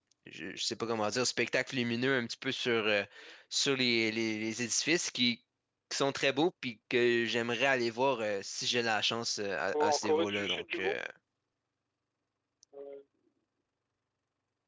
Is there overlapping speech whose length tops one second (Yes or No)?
Yes